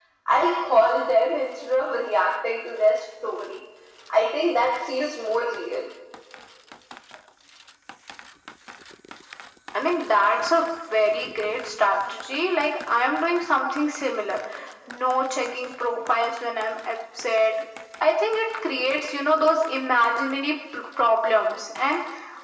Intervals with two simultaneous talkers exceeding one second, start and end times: none

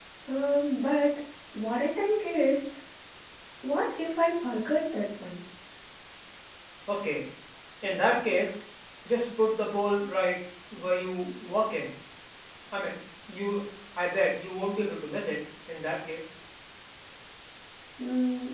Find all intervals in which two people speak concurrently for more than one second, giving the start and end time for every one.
none

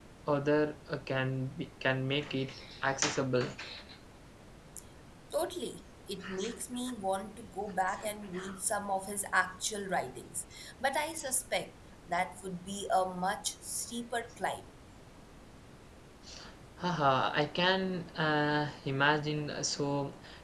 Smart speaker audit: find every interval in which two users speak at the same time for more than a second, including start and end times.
none

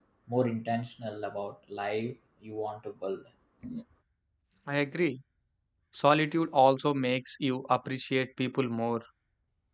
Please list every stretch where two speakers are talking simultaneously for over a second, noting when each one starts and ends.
none

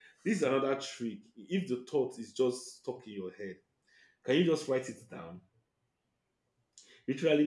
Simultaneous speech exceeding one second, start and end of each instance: none

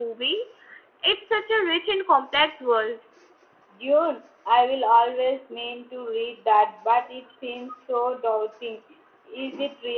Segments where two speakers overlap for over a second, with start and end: none

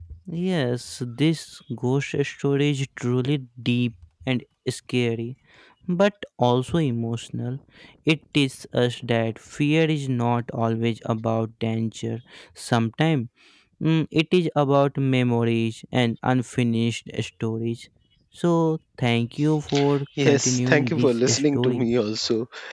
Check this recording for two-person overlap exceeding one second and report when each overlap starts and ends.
20.2-21.9

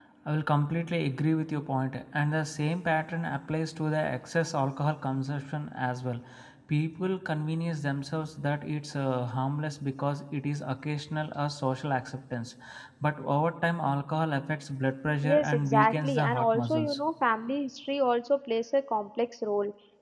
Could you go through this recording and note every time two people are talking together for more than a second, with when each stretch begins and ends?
15.2-17.0

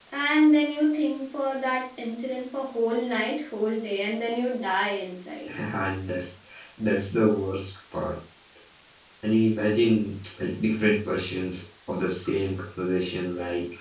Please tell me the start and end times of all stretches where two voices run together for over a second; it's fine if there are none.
none

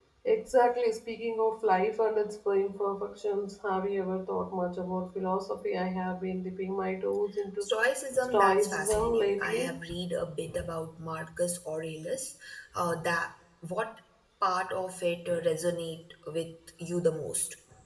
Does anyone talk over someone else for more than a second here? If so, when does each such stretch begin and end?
8.3-9.8

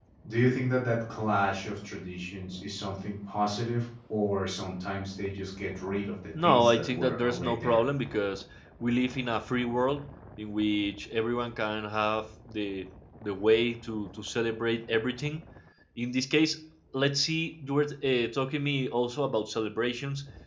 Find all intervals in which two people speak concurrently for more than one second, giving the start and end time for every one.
6.4-7.8

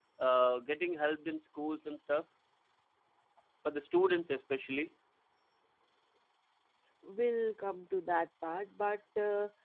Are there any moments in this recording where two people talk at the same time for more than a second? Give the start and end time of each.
none

